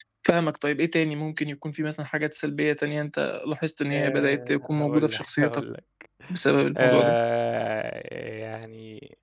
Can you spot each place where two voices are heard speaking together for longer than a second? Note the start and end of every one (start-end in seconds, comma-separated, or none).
3.9-5.6